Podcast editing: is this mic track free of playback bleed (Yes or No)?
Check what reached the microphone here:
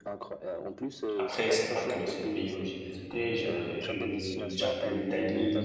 No